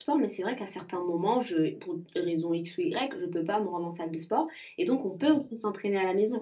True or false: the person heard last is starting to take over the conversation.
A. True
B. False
B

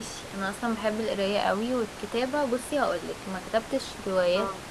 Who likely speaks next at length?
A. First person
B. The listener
A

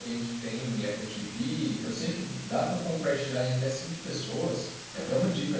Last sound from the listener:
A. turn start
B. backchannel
B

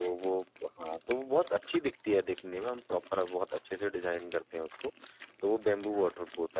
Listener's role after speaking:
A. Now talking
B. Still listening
B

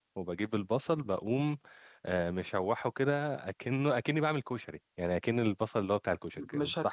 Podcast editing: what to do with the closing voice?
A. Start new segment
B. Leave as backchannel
A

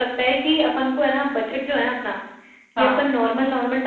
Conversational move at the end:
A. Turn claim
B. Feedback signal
B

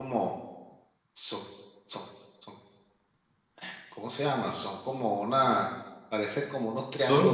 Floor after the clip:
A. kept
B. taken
B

